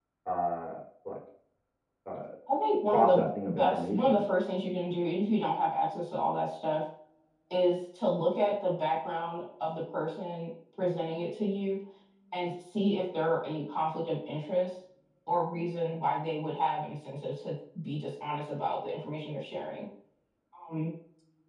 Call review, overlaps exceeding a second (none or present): present